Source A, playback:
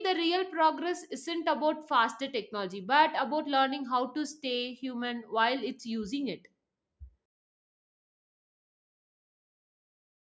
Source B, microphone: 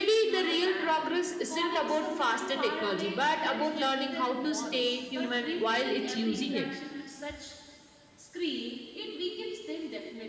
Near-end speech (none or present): present